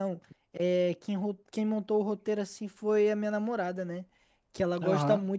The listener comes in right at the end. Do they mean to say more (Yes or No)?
No